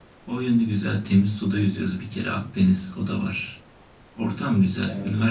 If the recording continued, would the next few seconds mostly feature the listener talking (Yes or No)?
No